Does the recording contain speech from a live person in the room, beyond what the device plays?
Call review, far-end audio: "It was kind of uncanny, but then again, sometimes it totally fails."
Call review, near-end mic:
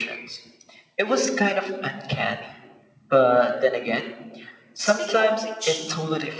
Yes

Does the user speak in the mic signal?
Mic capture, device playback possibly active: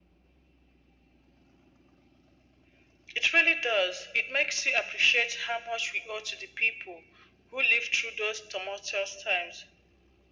No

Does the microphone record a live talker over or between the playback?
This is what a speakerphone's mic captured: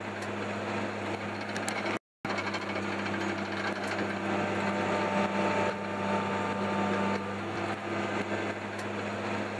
No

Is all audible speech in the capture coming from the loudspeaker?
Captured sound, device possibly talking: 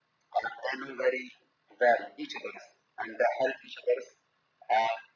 Yes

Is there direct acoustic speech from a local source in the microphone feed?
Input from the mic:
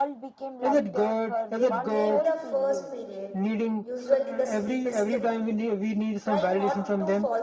Yes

